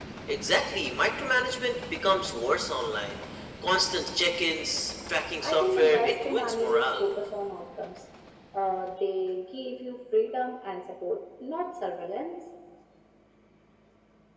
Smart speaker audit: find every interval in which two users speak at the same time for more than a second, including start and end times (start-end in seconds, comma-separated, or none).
5.4-7.1